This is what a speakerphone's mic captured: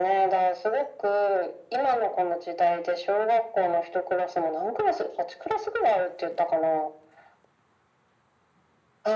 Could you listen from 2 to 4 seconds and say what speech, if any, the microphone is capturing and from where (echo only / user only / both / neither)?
echo only